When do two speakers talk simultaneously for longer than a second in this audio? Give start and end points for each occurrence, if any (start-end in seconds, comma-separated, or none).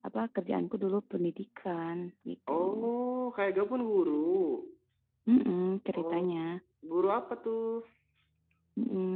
none